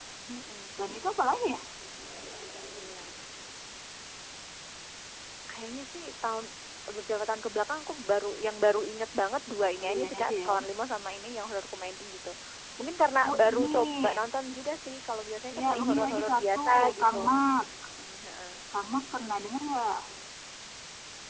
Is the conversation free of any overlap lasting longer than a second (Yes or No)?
No